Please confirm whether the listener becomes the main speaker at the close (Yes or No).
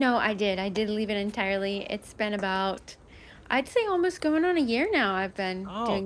Yes